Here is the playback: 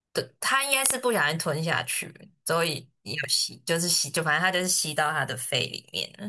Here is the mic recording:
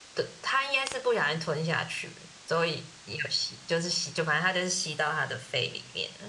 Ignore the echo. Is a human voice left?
No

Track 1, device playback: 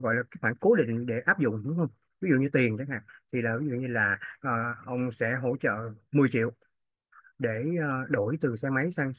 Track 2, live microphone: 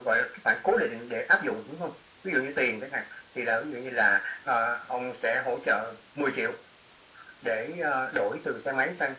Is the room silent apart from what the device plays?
Yes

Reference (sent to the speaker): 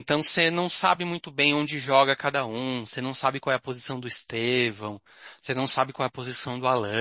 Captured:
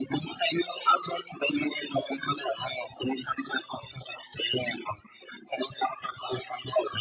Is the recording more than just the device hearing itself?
No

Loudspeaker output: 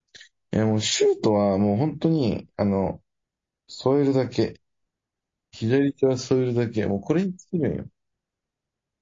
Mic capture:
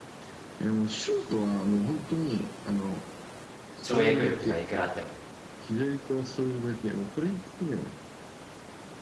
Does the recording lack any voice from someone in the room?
No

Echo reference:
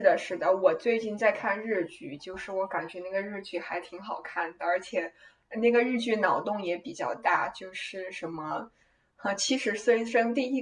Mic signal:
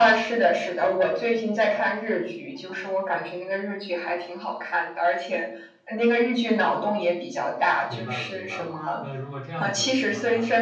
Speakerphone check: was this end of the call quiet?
No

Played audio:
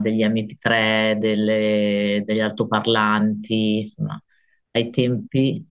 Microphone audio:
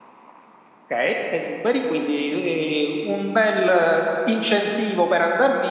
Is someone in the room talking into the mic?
Yes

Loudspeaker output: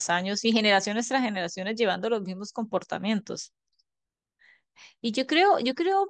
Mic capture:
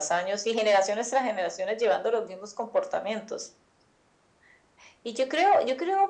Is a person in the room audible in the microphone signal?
No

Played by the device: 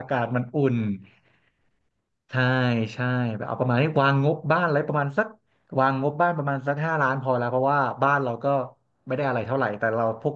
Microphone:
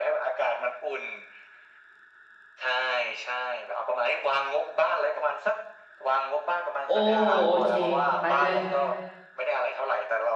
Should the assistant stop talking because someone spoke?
Yes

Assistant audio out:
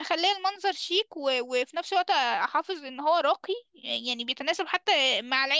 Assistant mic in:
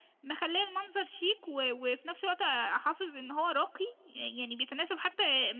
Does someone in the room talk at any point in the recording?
No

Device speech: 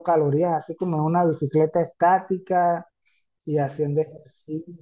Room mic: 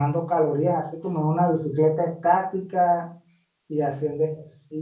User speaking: No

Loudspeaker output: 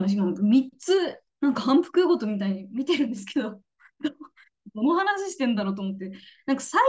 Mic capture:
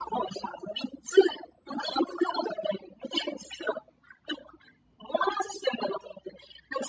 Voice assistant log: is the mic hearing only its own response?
Yes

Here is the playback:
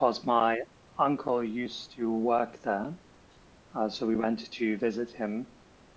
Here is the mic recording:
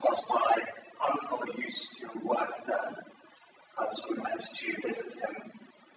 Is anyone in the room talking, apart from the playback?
No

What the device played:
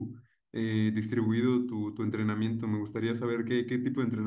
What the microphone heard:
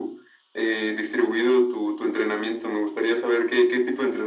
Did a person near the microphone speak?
No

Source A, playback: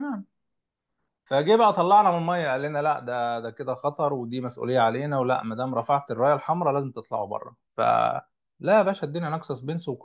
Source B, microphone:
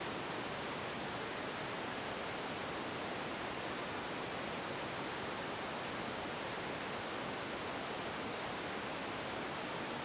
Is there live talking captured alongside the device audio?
No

